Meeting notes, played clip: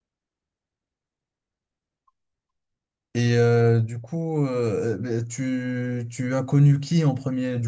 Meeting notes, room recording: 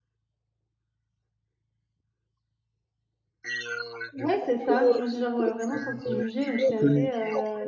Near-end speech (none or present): present